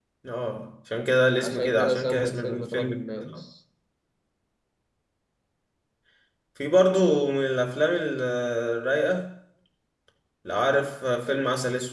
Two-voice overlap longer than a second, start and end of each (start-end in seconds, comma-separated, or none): 1.4-3.4